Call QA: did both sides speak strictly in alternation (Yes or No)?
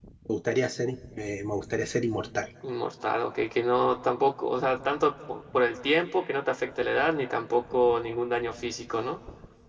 Yes